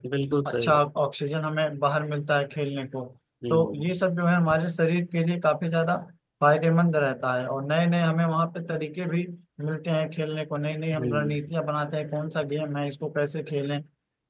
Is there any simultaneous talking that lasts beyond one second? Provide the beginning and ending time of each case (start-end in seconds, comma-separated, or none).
none